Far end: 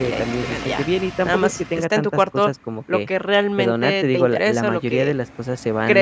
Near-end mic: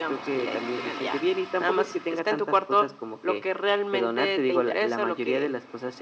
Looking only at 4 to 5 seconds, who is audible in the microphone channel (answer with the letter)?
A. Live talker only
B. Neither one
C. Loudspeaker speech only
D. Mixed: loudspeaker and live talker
C